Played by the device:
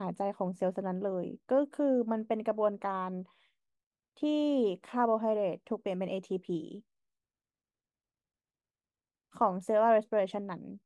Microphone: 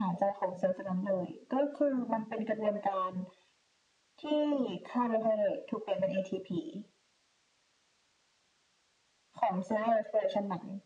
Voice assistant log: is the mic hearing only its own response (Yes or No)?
Yes